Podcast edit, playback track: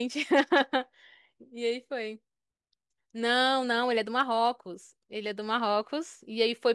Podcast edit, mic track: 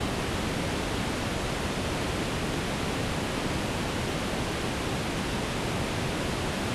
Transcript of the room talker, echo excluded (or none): none